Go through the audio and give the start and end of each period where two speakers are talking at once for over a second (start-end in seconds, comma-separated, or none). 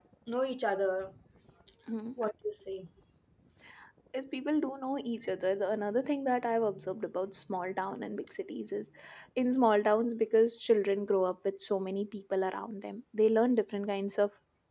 none